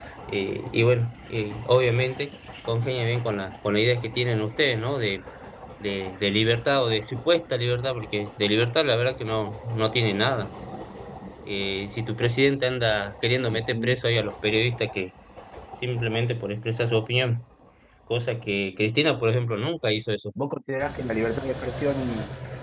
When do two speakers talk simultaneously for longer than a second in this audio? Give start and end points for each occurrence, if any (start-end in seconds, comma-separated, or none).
none